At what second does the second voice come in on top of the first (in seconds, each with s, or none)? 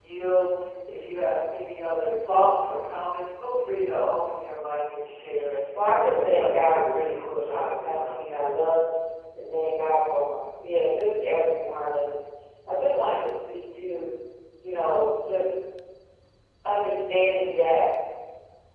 6.0 s